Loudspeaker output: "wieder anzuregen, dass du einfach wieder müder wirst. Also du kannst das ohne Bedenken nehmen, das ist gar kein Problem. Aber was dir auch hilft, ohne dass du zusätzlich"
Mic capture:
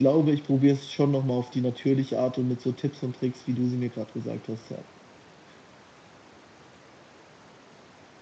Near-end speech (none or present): present